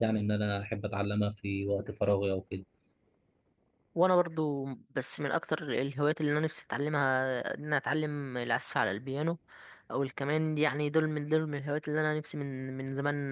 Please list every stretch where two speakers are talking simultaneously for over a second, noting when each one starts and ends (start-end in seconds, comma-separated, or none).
none